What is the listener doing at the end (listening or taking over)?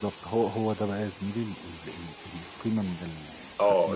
taking over